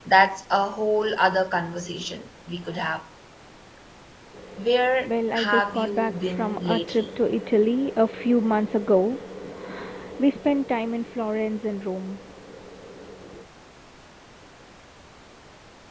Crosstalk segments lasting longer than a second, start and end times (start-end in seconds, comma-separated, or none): 5.1-7.1